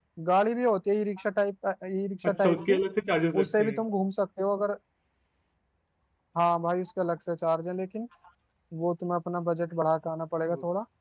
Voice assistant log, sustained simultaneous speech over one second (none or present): none